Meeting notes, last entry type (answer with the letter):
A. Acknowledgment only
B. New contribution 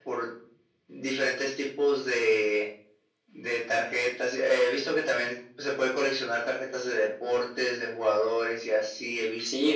B